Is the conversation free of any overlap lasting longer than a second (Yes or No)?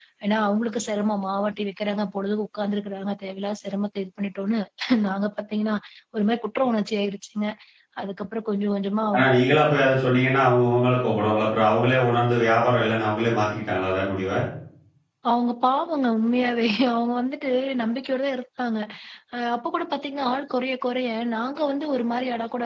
Yes